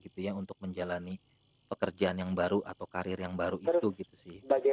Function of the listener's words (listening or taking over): taking over